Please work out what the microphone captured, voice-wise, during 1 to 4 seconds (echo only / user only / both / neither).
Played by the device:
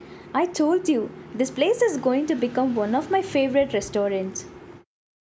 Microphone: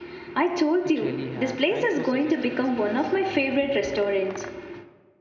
both